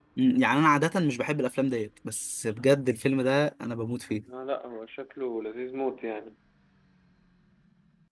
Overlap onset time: none

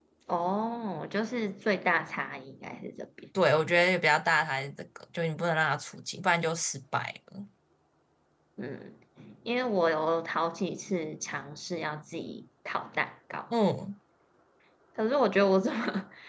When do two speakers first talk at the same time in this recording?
none

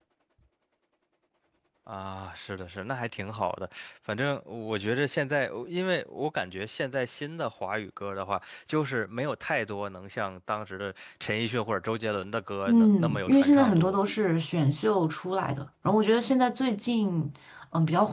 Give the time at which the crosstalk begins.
12.7 s

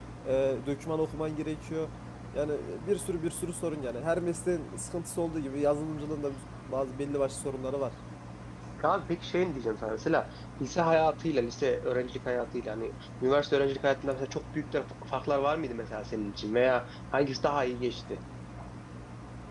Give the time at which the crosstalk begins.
none

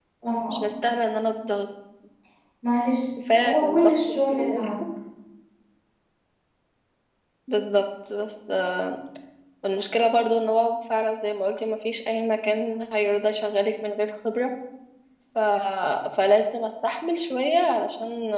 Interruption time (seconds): 3.3 s

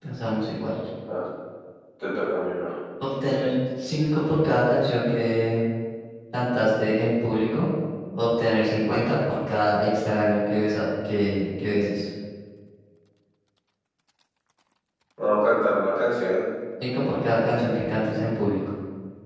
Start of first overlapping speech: none

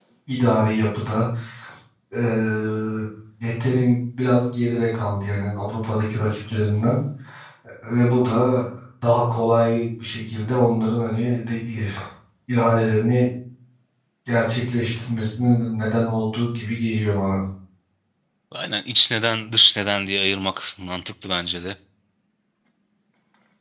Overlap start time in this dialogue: none

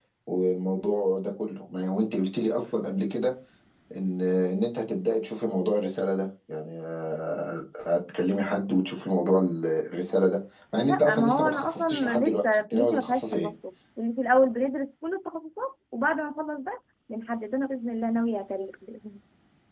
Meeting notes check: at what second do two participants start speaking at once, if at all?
10.8 s

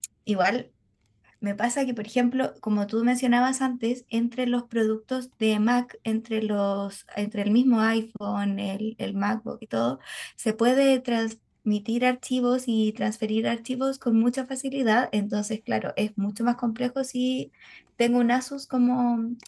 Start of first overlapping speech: none

